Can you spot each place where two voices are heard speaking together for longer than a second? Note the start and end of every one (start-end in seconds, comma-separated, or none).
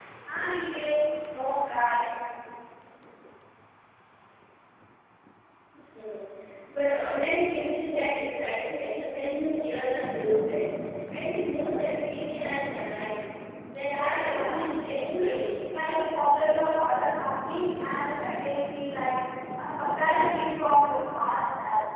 13.8-15.3